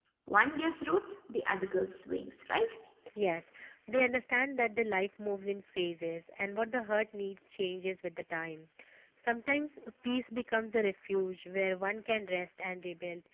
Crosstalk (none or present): none